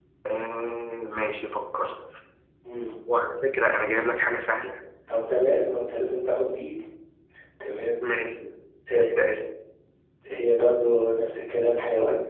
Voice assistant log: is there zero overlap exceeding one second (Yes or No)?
Yes